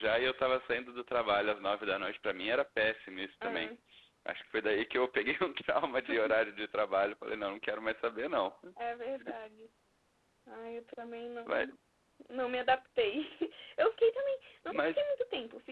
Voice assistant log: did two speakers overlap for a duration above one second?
No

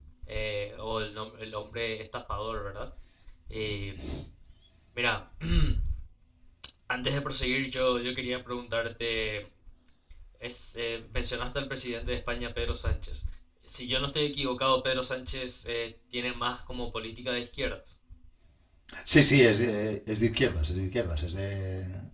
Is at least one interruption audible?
No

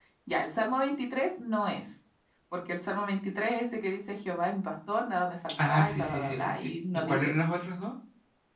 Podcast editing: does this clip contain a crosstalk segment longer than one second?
Yes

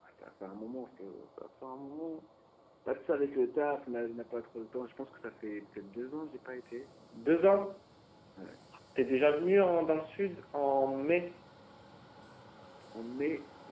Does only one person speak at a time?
Yes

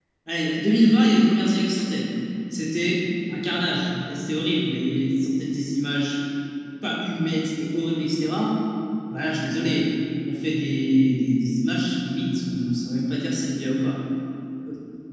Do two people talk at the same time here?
No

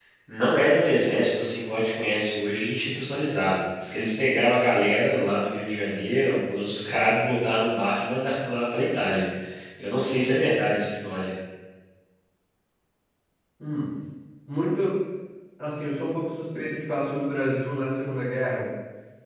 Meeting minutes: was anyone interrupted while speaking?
No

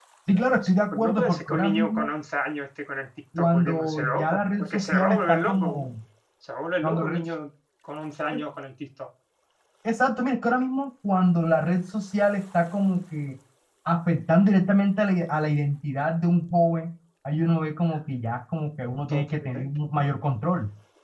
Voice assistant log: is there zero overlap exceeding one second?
No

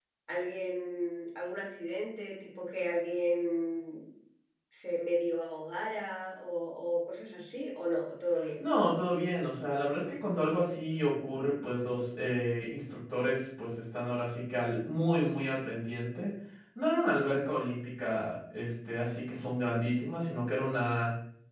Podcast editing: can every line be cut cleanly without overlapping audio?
Yes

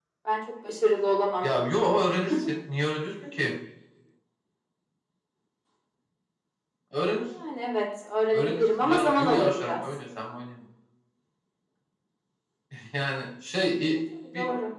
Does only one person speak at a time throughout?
No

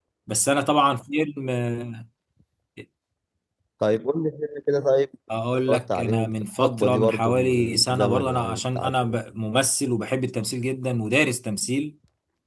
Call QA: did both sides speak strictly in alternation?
No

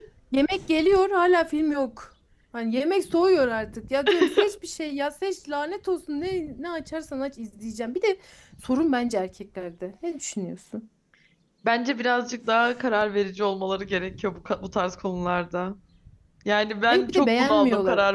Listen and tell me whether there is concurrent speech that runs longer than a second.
Yes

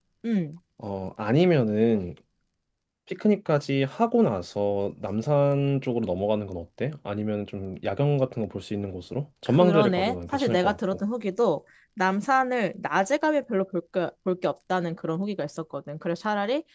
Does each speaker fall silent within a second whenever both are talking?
No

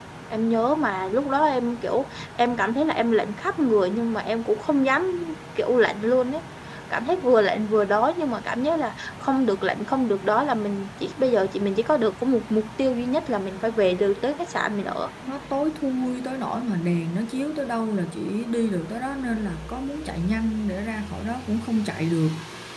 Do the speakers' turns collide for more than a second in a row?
No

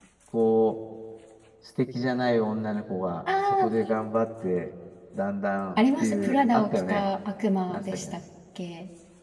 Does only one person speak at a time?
No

